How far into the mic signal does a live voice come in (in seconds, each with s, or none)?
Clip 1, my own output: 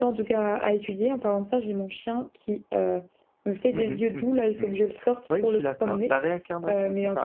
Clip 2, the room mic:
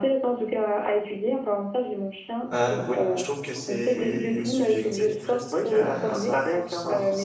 2.5 s